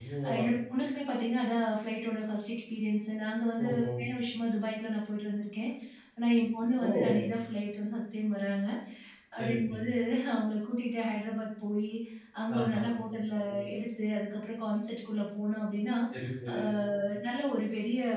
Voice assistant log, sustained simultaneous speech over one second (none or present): none